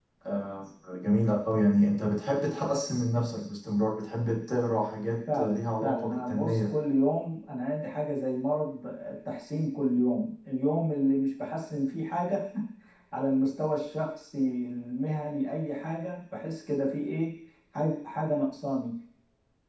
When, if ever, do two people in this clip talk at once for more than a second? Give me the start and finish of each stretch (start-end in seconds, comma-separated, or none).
5.3-6.6